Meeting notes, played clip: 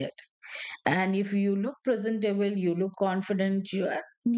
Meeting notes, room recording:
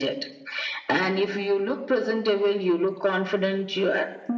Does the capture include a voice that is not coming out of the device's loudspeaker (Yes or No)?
No